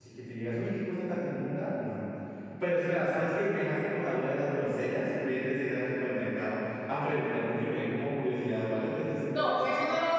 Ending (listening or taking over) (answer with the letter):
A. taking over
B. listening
A